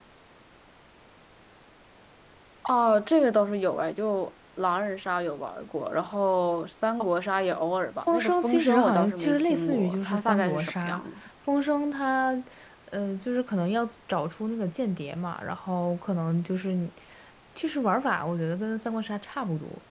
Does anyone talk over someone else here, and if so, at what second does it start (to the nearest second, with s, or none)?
8 s